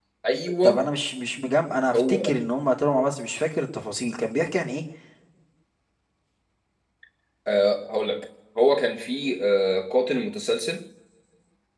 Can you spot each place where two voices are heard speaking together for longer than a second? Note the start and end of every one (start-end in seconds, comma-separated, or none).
none